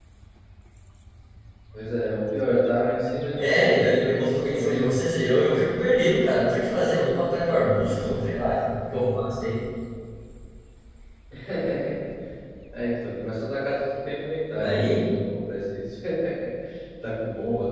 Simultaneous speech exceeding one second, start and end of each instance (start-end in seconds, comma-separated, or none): 3.4-5.5